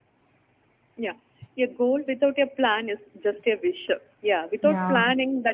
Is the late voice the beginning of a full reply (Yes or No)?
No